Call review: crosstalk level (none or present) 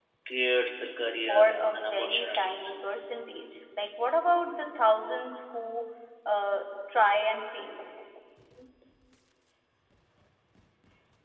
present